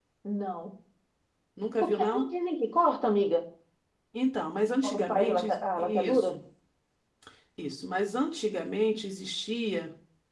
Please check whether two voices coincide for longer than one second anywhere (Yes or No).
Yes